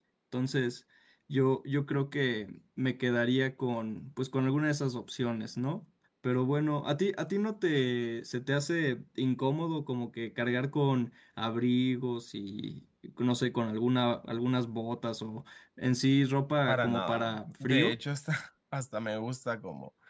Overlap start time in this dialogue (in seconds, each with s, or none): 16.7 s